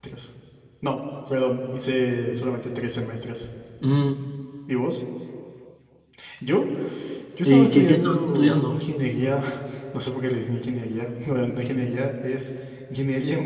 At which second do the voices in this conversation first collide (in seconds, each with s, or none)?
7.5 s